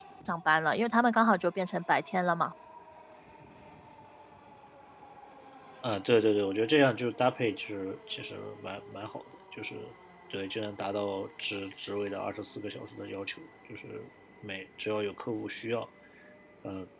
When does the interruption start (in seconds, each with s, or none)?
none